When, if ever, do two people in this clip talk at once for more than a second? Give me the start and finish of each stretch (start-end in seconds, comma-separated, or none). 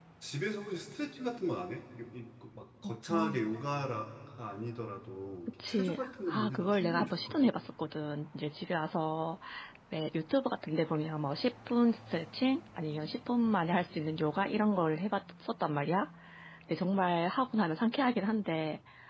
5.7-7.5